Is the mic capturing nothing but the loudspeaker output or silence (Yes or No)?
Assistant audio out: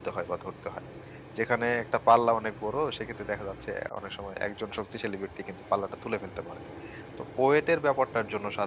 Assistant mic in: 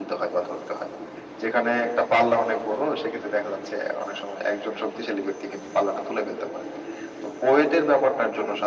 Yes